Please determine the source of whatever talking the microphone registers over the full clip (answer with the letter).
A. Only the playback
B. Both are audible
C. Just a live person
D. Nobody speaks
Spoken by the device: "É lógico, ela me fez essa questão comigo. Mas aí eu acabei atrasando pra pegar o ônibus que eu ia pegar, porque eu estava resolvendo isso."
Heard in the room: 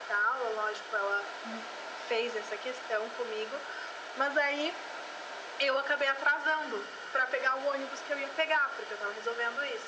A